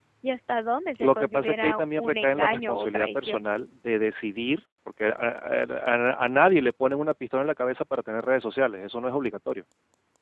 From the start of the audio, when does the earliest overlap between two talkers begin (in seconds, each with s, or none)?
1.0 s